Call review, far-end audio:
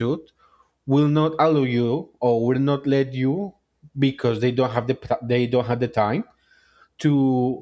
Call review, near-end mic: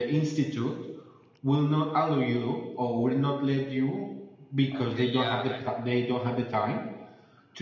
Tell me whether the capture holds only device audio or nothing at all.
No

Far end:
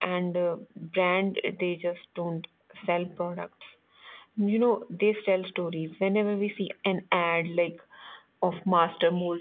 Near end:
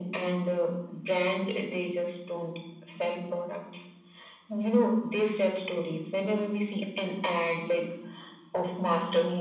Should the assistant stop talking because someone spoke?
No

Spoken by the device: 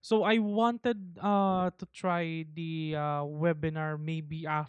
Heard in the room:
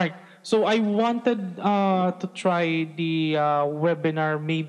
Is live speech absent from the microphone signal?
Yes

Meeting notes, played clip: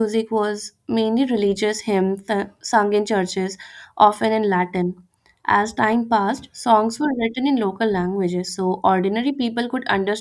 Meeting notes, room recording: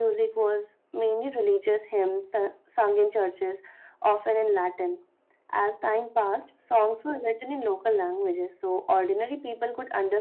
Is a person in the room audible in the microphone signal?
No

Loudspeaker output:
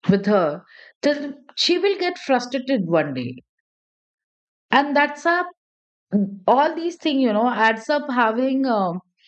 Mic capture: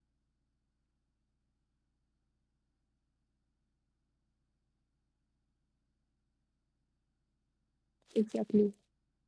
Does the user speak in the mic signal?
Yes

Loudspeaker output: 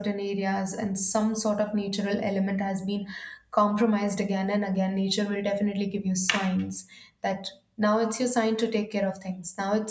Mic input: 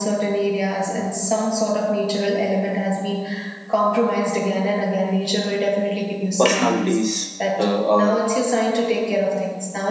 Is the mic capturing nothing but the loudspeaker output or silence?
No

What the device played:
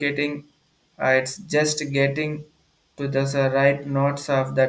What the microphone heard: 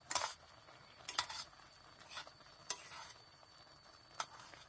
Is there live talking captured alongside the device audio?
No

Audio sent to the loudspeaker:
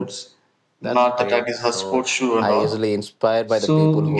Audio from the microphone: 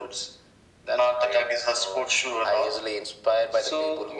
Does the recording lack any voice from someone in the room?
Yes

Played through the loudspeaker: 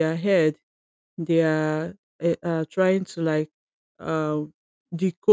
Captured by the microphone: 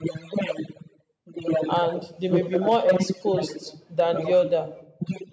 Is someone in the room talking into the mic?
Yes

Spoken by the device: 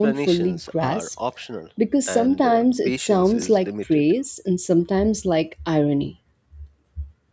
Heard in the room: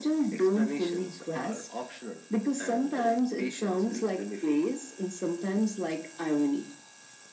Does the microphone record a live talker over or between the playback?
No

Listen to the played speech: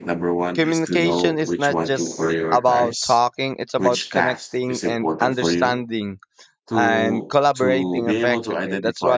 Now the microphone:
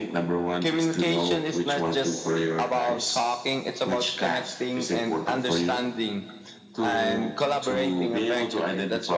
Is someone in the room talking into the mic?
No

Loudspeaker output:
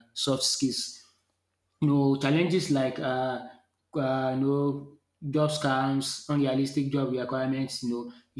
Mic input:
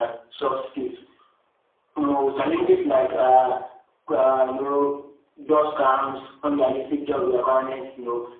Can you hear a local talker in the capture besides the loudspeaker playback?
No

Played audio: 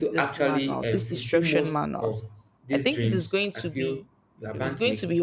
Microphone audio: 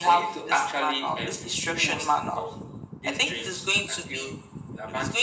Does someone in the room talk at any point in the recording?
No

